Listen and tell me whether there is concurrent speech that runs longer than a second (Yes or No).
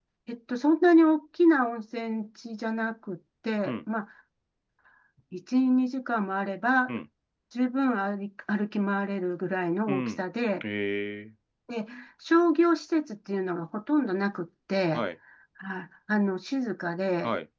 No